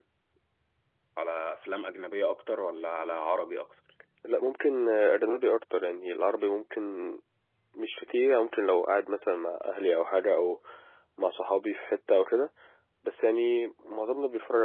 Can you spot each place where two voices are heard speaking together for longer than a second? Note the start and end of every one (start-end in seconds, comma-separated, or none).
none